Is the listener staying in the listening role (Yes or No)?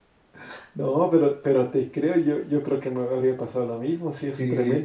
Yes